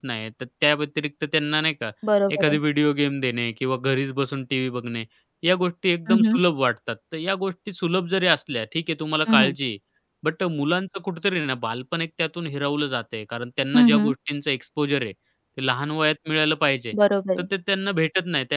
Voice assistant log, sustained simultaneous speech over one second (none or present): none